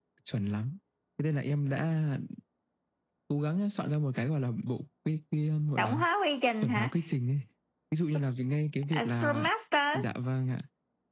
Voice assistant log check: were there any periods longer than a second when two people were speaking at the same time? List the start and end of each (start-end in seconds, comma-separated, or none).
none